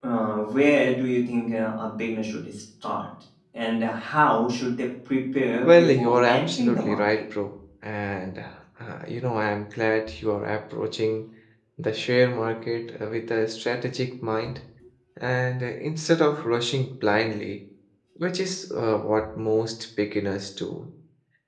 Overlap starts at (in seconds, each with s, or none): 5.6 s